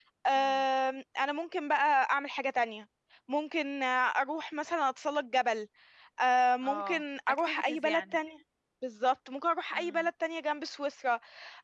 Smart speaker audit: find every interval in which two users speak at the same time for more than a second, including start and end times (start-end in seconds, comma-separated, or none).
6.6-8.2